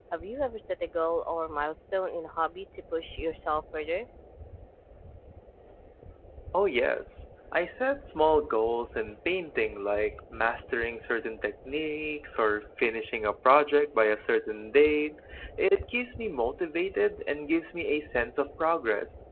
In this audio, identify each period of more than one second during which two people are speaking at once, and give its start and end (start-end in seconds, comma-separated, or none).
none